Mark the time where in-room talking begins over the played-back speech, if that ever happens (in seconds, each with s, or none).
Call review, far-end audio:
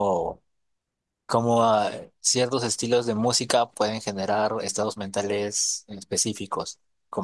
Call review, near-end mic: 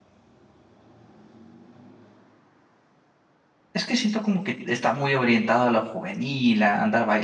3.7 s